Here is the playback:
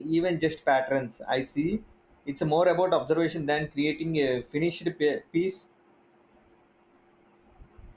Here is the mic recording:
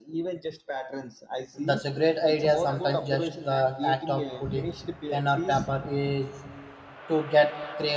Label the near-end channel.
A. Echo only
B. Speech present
B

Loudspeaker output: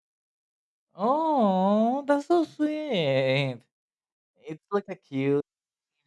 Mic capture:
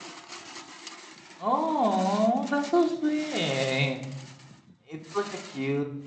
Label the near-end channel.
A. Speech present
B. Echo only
B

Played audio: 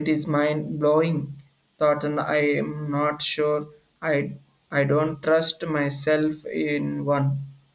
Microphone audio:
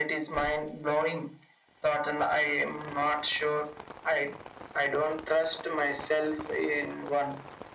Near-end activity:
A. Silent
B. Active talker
A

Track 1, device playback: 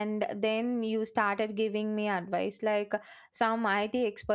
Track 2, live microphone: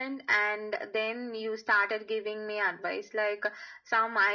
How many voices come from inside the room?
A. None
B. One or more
A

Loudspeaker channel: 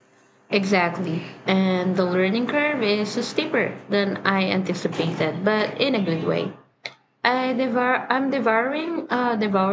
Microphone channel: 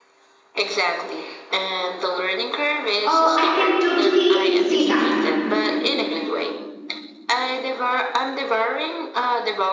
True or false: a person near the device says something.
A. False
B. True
B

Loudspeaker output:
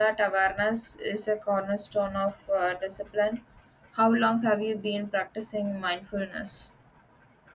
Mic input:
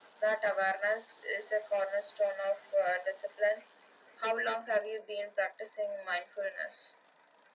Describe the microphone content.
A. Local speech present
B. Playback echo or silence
B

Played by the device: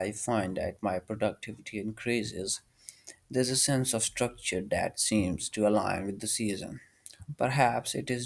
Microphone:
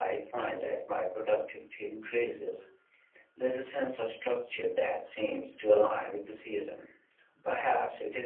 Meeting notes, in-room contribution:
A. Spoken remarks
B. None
B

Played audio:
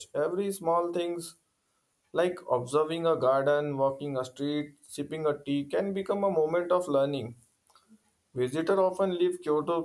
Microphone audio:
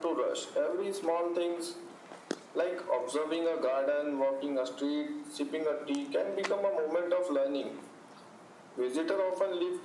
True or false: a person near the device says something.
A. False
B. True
A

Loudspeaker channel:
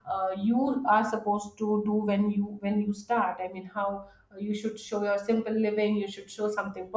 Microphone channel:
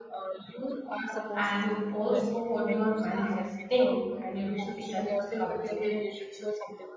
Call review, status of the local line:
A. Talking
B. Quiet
A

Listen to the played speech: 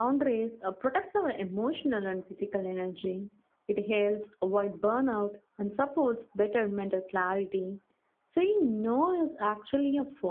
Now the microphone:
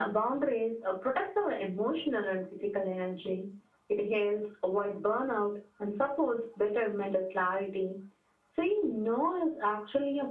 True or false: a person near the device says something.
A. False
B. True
A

